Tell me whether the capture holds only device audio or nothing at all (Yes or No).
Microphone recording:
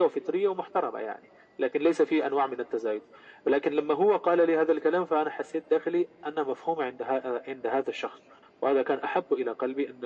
Yes